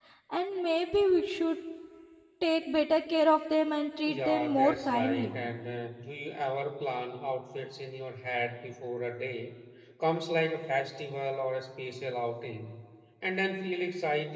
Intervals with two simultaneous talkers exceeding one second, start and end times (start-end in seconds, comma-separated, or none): 4.1-5.3